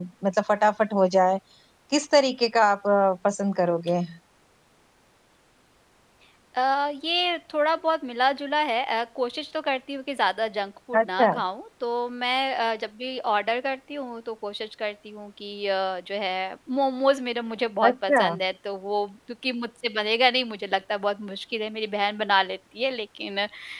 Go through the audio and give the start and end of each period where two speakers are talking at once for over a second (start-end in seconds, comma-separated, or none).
none